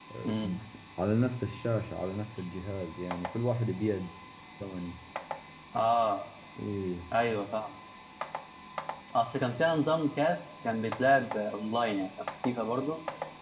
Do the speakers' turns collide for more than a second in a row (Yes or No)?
No